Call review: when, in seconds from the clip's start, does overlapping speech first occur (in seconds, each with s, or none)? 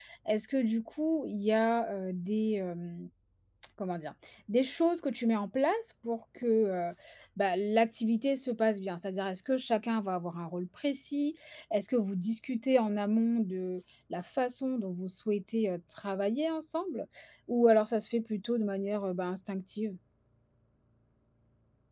none